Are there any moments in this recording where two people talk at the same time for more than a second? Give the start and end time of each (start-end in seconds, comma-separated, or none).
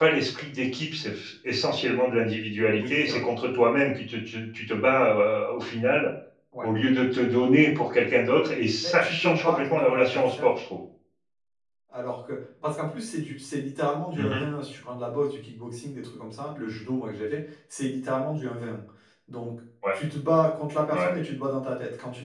8.8-10.4